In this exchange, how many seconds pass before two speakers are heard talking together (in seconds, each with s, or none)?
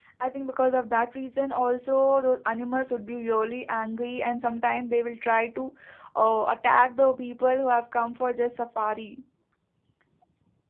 none